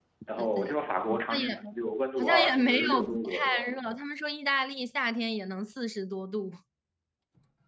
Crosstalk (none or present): present